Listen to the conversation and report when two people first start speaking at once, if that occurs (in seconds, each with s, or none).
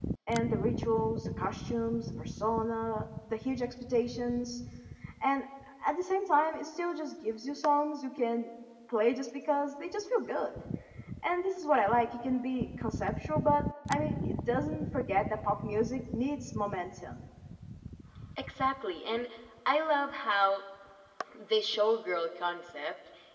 none